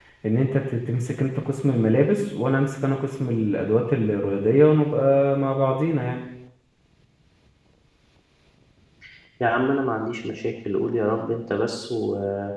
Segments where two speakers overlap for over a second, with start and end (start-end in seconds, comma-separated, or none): none